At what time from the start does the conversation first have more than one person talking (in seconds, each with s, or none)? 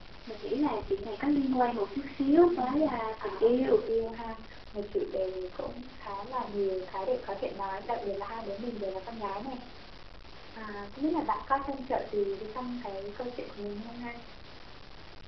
2.5 s